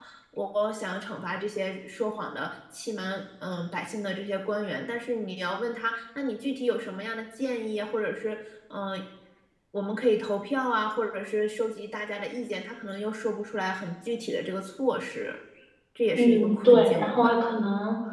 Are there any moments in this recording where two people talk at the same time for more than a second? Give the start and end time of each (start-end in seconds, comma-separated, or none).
16.1-17.4